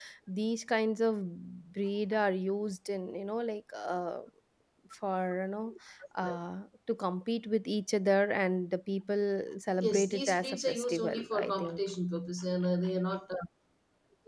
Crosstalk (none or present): present